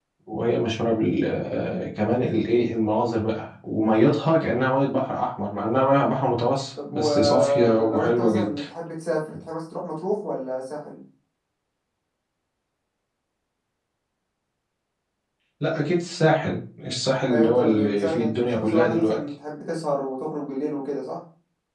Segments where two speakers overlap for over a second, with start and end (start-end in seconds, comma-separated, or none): 6.9-8.6, 17.3-19.2